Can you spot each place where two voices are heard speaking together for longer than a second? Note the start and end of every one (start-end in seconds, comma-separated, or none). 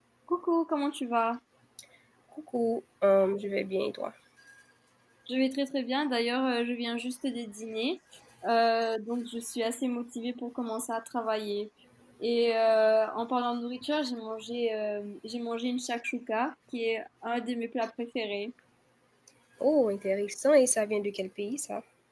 none